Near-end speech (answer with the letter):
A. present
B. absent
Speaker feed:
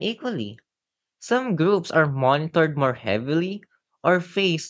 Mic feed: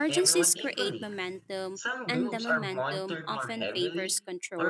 A